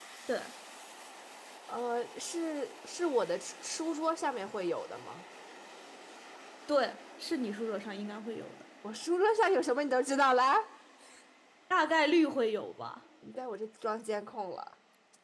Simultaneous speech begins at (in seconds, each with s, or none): none